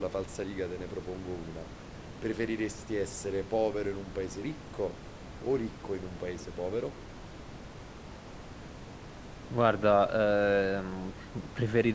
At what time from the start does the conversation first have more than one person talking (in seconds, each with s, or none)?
none